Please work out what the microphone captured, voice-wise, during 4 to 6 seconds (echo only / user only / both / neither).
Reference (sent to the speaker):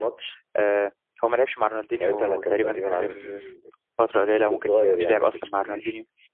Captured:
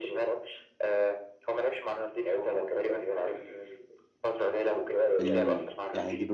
both